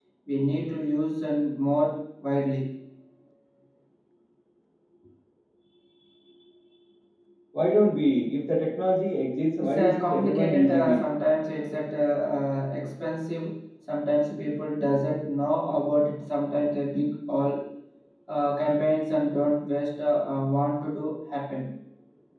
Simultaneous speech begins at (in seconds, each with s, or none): 9.6 s